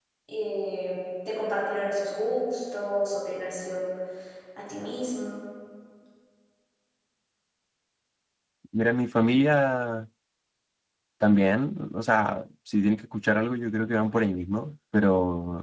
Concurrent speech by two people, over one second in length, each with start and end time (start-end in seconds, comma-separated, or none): none